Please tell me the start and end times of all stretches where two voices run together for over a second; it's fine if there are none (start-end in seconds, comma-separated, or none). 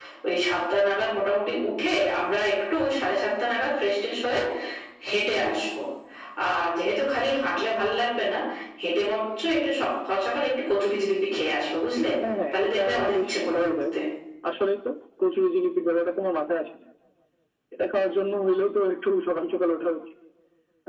12.5-13.7